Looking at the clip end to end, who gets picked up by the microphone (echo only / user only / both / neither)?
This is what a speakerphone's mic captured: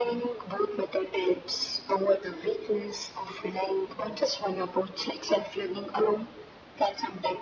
echo only